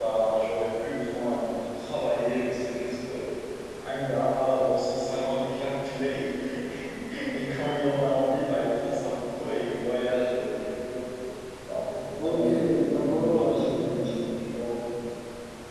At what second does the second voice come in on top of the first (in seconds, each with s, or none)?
12.2 s